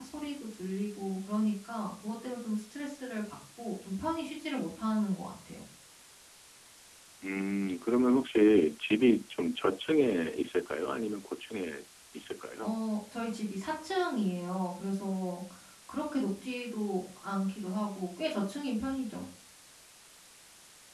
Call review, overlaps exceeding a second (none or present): none